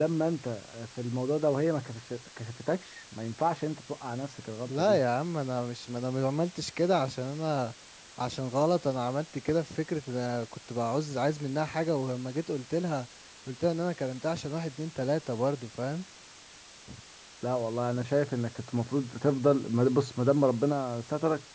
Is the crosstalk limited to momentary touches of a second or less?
Yes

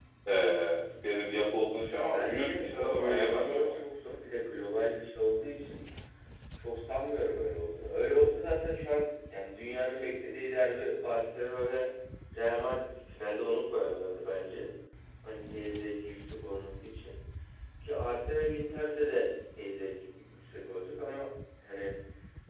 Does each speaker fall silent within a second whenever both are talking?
No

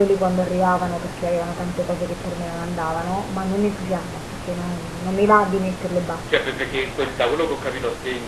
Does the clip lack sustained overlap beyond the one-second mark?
Yes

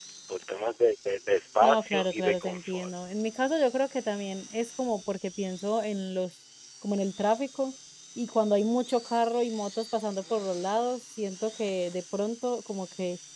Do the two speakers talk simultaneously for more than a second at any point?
Yes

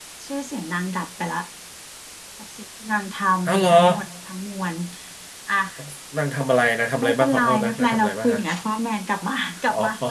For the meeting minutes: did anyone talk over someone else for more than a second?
Yes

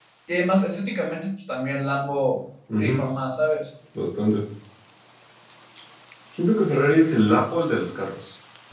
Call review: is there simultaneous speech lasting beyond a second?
No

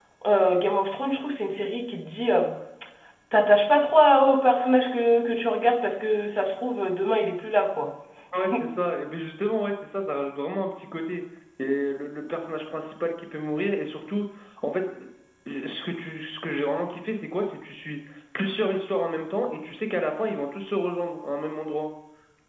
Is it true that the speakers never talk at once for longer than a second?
Yes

